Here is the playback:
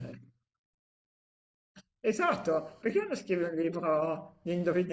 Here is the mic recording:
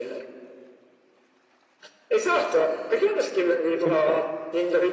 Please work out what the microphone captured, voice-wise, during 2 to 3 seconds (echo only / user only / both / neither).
echo only